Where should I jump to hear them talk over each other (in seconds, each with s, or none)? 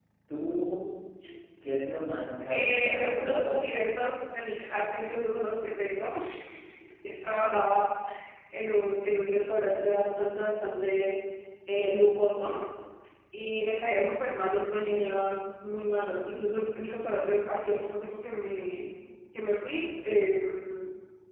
2.5 s